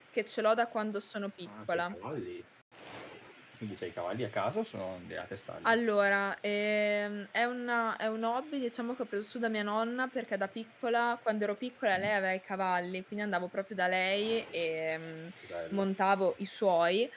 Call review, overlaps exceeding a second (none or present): none